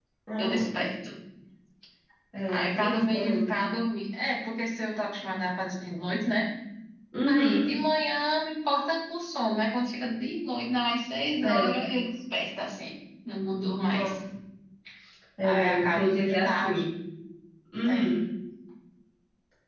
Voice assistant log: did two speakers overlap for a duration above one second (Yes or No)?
Yes